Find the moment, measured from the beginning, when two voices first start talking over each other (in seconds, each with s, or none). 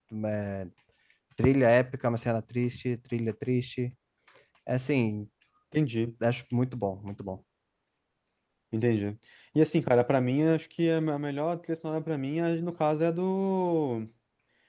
none